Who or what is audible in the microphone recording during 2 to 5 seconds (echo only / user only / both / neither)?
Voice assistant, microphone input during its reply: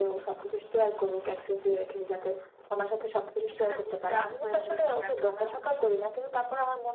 both